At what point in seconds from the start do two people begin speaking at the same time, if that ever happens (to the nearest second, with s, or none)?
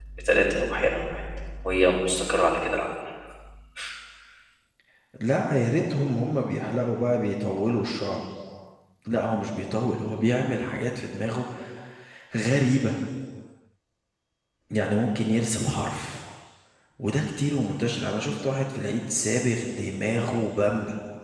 none